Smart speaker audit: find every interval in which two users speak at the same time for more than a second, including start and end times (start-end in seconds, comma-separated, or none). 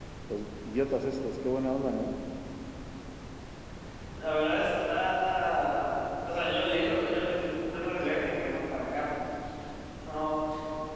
none